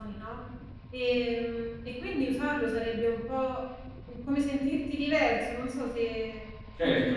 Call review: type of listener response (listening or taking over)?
taking over